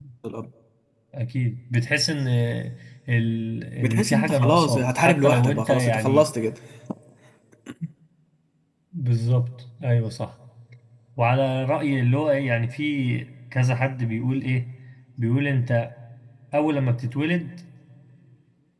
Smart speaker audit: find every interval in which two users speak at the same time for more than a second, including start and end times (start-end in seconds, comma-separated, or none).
3.8-6.2